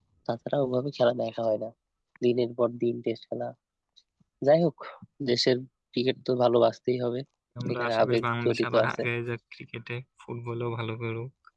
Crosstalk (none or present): present